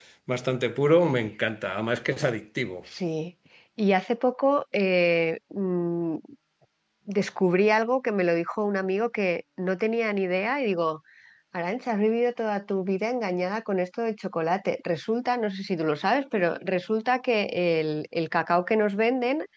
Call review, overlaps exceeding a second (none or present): none